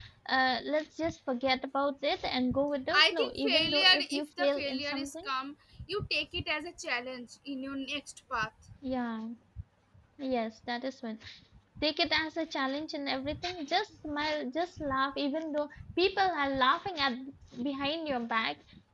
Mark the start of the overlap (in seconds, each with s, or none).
2.9 s